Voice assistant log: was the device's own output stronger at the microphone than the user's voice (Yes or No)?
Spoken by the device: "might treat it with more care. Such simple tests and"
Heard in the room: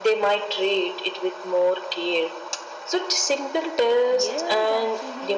Yes